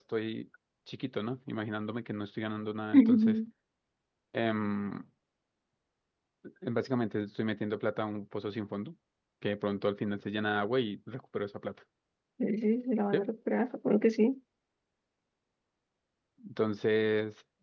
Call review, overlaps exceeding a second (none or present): none